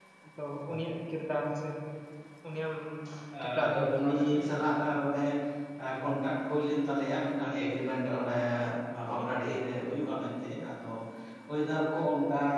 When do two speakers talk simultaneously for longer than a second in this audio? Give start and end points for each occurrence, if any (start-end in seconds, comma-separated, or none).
3.4-4.9